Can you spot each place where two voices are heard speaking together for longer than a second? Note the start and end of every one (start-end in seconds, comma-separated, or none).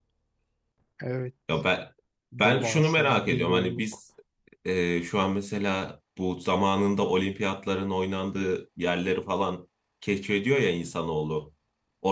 2.4-3.8